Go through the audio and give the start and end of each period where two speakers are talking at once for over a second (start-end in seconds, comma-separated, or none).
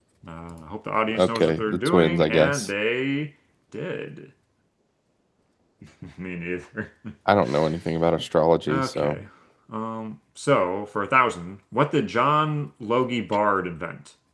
1.1-2.7